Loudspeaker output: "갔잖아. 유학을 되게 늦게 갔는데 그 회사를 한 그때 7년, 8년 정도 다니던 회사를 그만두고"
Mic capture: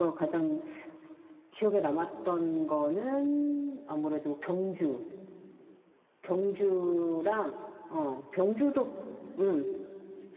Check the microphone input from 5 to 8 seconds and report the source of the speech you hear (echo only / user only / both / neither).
user only